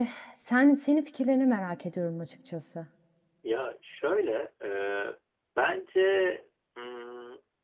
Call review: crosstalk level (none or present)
none